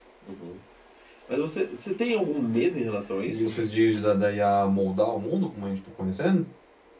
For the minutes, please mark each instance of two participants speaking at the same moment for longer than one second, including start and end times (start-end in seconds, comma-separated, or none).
none